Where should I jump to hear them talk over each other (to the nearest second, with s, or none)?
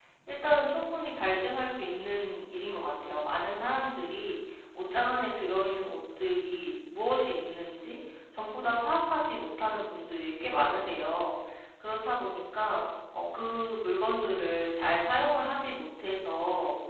none